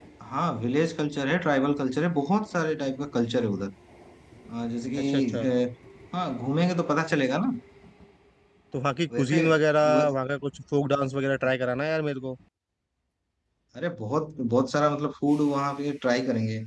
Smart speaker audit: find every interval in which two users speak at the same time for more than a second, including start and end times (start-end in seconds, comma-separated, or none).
none